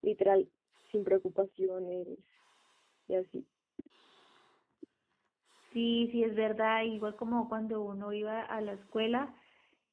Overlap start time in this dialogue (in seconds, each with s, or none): none